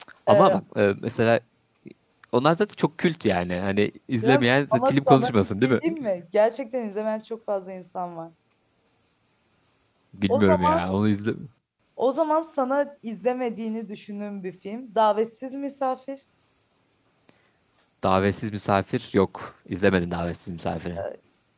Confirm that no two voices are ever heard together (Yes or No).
No